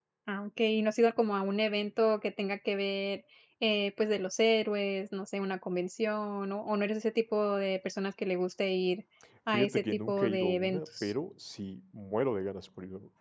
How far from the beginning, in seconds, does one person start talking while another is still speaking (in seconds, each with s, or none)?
9.5 s